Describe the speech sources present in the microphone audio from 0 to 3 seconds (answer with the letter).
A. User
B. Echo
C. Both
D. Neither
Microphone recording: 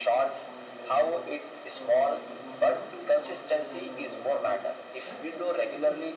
C